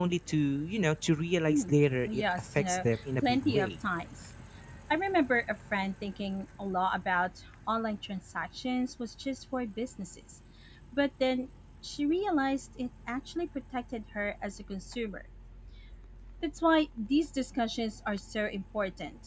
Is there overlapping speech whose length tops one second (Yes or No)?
Yes